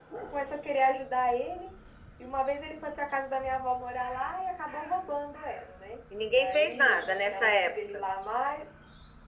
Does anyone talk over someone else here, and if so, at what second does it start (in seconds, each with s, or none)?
6.1 s